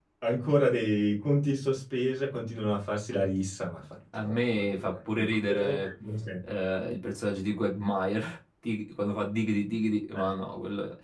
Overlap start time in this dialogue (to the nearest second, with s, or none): 4 s